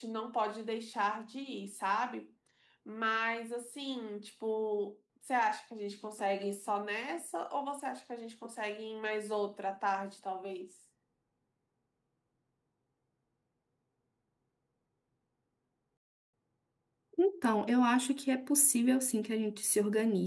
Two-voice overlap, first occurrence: none

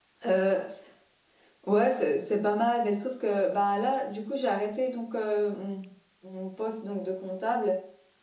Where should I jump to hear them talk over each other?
none

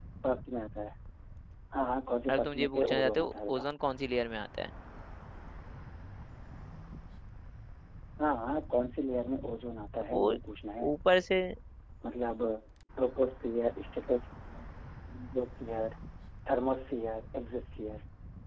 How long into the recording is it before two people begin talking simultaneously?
2.3 s

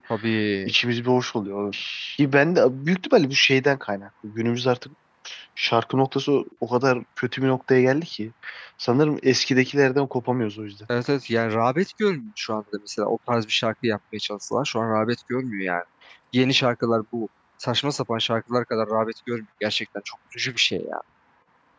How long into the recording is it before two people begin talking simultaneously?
none

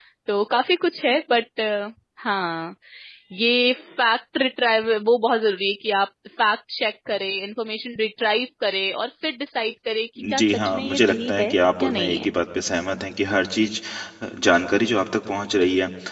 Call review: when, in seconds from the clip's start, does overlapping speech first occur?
10.2 s

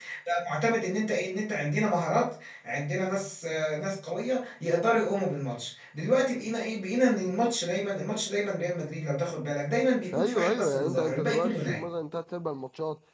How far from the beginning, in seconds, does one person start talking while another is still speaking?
10.1 s

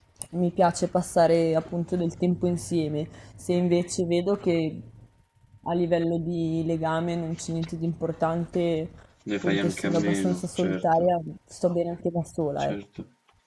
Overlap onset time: 9.4 s

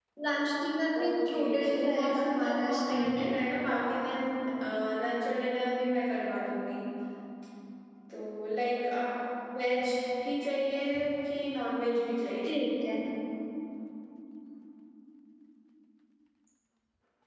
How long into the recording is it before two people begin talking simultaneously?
0.9 s

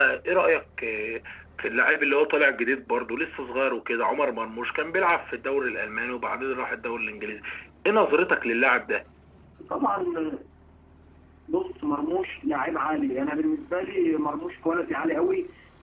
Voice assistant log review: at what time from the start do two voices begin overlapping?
none

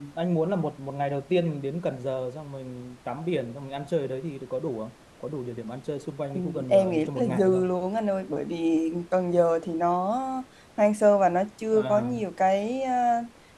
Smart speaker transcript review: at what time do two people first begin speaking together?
6.4 s

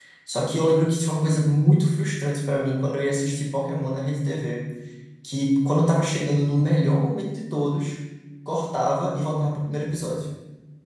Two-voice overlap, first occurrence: none

